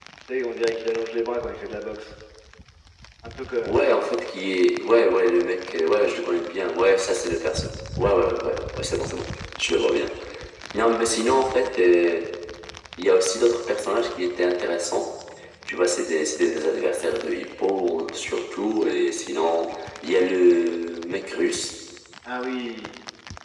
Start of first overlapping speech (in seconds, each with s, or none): none